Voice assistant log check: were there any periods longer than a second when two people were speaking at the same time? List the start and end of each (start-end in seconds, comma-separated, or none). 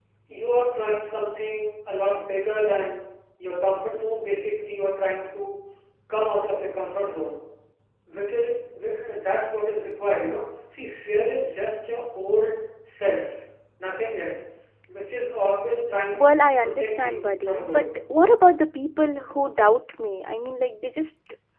16.2-17.9